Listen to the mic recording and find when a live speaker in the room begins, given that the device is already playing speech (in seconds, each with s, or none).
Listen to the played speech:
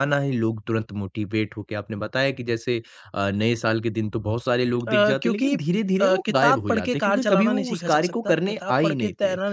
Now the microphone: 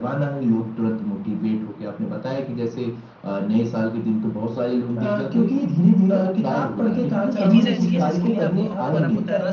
7.3 s